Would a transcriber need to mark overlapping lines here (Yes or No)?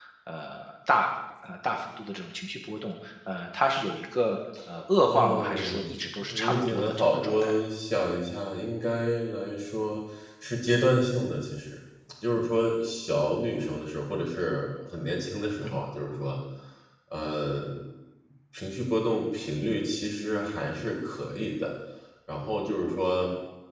Yes